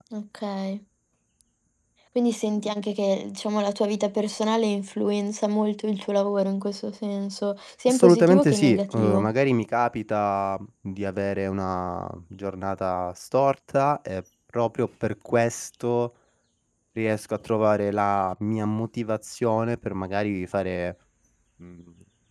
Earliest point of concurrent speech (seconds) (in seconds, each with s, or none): 7.9 s